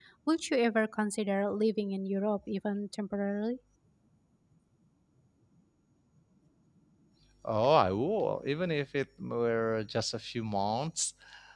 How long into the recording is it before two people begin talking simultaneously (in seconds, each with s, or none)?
none